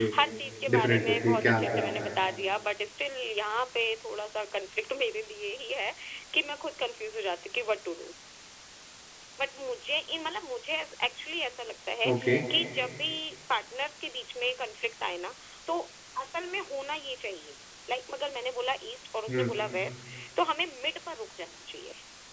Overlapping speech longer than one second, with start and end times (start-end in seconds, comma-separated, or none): 0.8-2.1